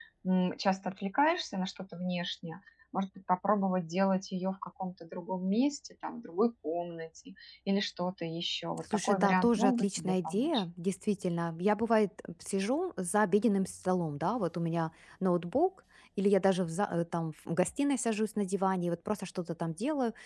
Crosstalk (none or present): present